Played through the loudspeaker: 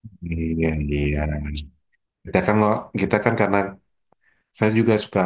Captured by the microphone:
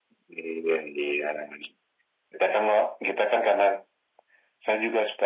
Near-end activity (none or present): none